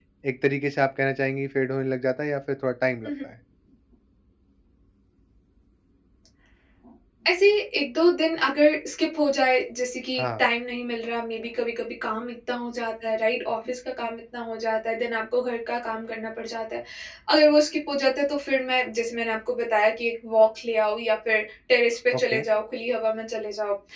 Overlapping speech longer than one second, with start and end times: none

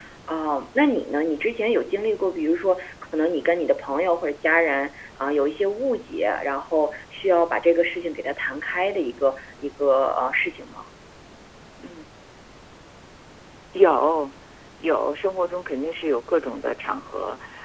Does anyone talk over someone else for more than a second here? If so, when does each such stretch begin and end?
none

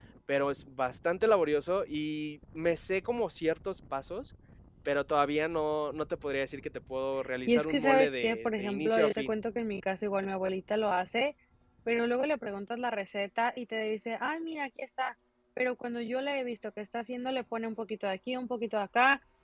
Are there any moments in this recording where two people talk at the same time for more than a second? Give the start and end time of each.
7.5-9.3

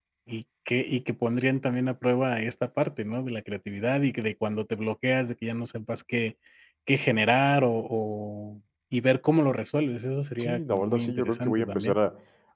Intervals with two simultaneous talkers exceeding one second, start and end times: 10.4-12.0

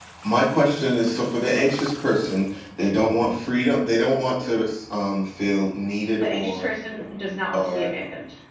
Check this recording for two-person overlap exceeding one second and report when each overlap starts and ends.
none

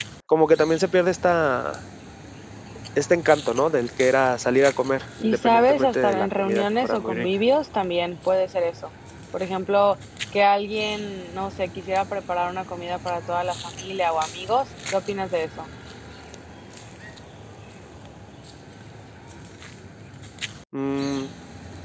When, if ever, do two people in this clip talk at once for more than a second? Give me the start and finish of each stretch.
5.2-7.3

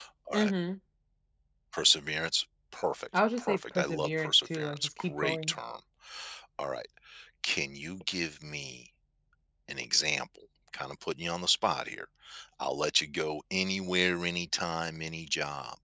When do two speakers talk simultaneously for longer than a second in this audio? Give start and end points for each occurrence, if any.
3.4-5.6

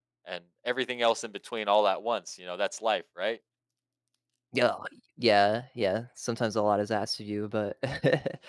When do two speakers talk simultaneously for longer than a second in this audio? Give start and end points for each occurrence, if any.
none

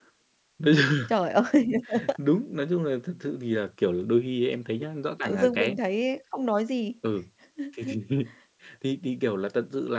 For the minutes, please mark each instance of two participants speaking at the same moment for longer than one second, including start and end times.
none

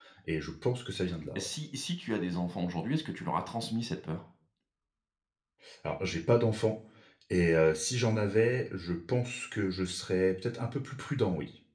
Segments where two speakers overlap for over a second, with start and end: none

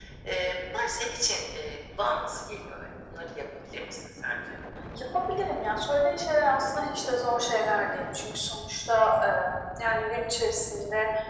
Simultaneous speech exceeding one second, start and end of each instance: none

